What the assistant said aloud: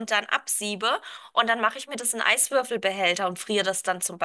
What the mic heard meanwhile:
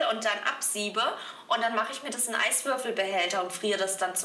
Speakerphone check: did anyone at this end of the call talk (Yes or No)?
No